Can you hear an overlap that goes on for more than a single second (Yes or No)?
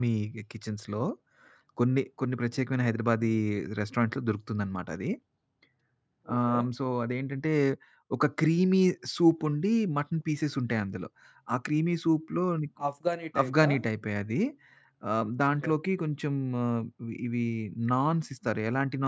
No